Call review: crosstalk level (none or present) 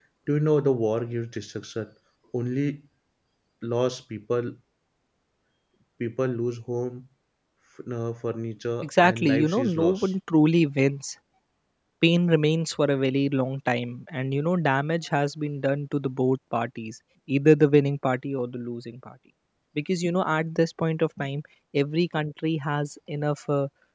present